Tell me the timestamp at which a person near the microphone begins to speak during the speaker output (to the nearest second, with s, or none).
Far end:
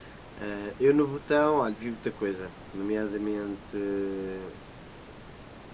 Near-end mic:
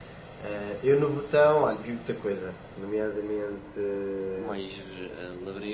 4 s